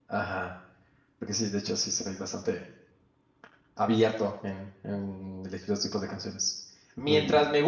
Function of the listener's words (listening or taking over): listening